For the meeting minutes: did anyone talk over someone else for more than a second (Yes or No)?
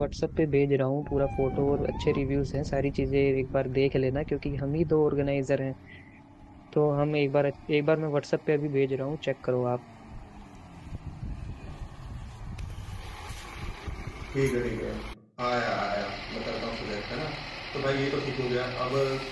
No